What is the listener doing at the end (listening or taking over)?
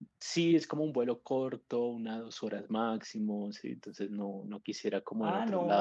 taking over